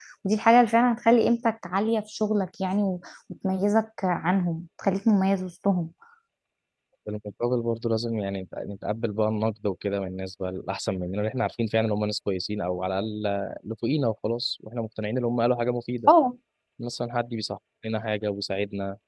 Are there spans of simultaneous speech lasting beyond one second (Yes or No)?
No